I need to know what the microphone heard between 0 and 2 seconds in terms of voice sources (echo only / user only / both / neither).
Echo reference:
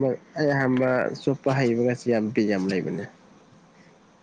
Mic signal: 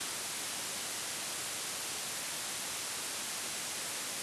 neither